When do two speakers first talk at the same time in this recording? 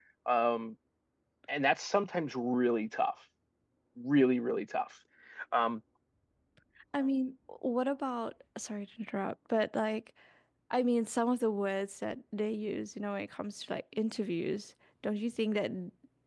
none

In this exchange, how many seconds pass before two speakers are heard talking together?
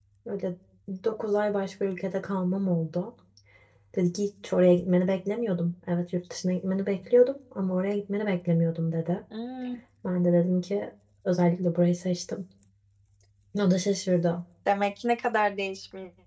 none

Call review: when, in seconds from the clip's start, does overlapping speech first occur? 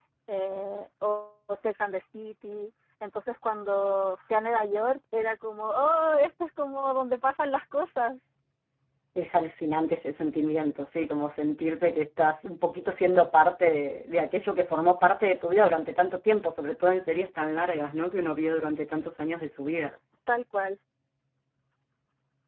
none

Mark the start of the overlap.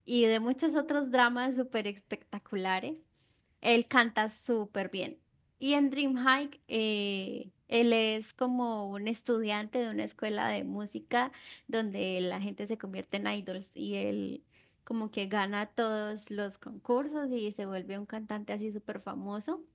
none

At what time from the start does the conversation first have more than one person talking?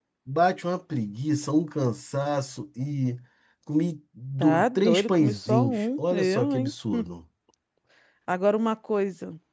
4.4 s

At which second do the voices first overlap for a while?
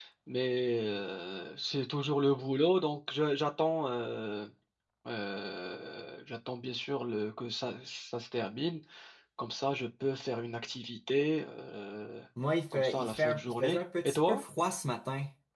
12.7 s

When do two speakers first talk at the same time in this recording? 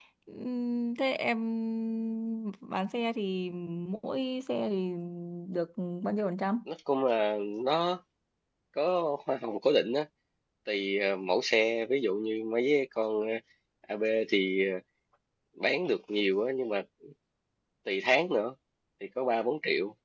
none

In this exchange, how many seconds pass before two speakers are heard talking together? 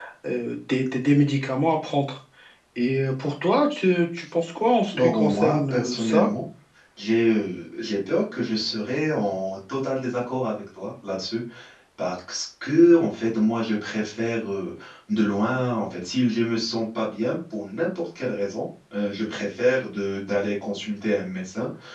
4.9 s

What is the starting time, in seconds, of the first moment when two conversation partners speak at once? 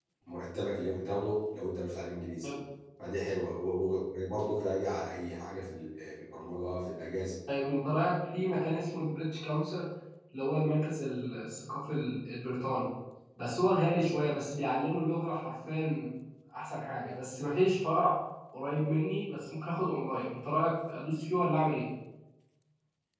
none

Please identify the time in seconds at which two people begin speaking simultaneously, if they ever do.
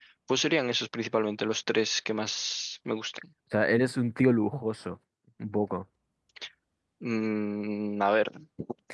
none

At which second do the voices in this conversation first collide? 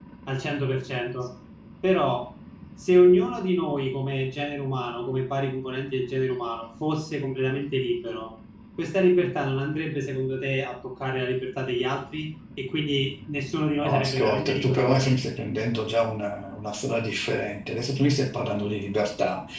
13.8 s

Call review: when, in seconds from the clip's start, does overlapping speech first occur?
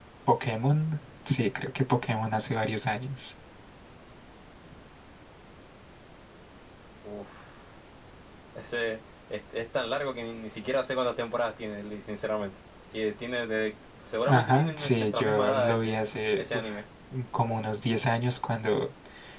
14.2 s

